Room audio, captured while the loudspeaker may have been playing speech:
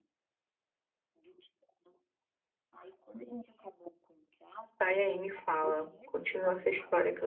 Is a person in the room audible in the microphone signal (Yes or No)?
Yes